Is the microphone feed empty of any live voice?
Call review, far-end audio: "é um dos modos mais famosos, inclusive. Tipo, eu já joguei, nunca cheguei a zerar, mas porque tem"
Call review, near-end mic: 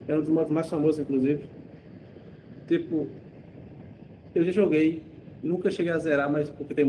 Yes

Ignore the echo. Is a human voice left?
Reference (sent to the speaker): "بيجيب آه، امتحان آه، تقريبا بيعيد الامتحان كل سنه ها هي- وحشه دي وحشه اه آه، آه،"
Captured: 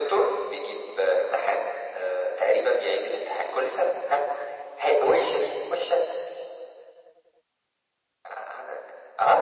No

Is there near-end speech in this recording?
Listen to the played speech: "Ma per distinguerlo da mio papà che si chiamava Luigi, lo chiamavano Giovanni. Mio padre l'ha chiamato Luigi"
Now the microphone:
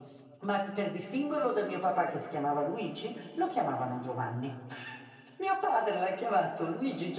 No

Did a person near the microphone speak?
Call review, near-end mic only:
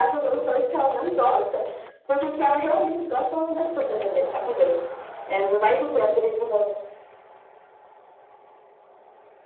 No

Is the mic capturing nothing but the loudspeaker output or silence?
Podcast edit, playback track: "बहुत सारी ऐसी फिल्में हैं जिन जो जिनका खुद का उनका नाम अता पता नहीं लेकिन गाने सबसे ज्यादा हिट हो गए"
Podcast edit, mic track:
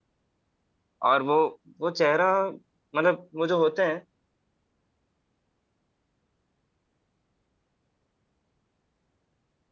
No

